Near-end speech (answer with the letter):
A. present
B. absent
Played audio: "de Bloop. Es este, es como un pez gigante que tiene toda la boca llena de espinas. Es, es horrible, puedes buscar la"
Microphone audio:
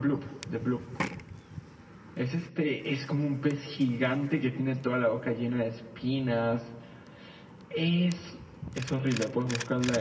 B